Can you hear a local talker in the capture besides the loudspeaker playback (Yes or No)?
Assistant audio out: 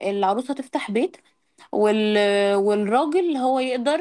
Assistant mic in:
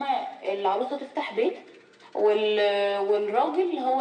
No